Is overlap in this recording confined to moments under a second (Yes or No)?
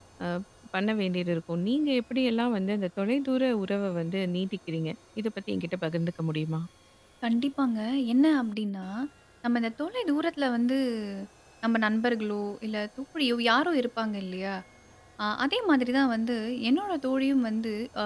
Yes